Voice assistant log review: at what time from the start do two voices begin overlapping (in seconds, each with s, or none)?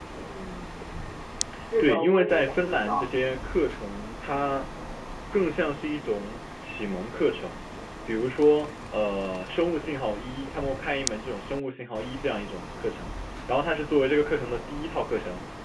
1.8 s